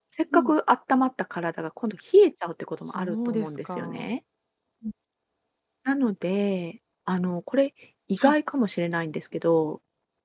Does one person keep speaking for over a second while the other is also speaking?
Yes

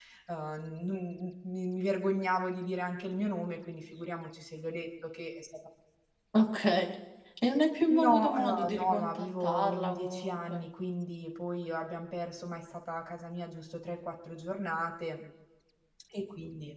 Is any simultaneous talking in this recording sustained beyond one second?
Yes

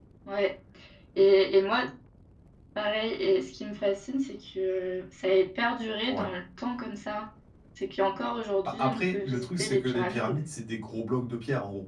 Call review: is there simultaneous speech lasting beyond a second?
Yes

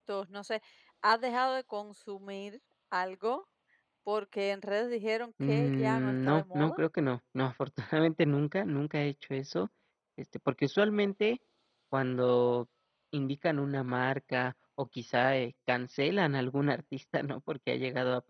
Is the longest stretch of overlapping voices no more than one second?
No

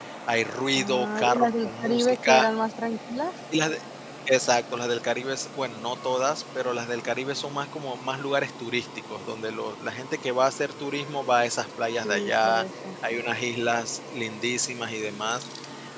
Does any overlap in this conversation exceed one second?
Yes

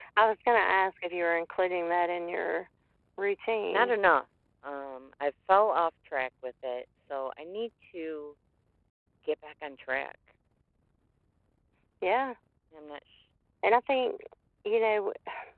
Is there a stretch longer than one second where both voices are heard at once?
No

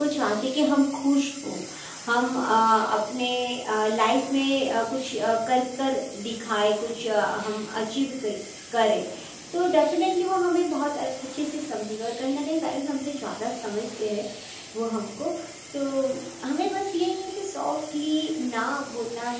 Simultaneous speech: No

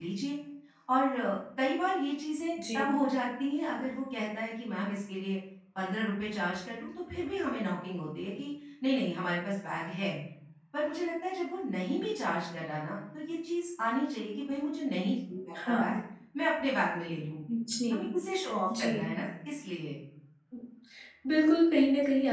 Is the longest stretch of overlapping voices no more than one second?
Yes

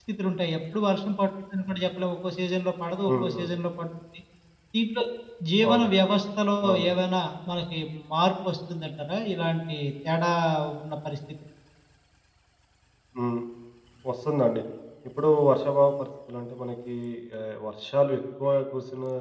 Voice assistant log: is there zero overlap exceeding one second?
Yes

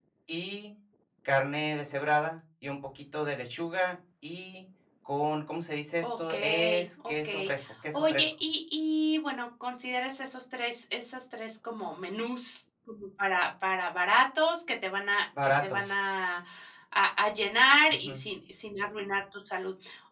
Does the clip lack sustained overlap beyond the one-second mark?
No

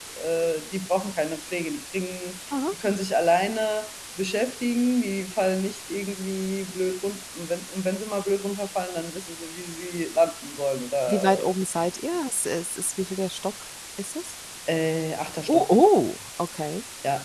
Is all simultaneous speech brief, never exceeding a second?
Yes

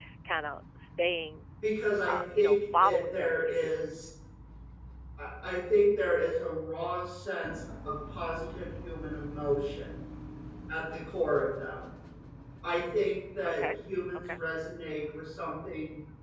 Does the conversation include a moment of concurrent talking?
Yes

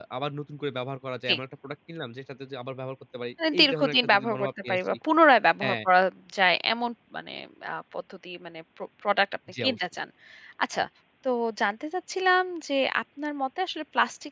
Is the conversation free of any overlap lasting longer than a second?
No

